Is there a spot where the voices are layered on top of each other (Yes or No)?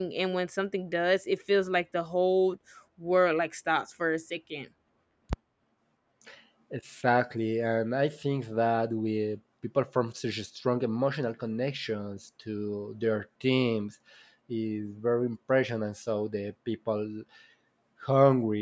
No